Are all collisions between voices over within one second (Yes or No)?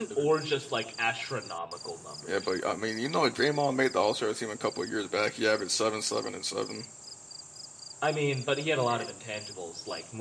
Yes